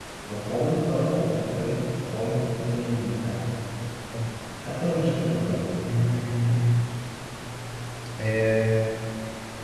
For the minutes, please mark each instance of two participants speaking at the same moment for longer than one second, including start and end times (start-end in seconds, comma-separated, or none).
none